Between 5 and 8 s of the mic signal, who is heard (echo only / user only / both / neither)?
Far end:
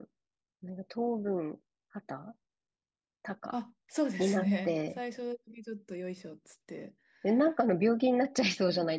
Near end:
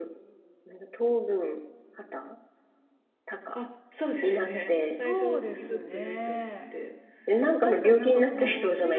both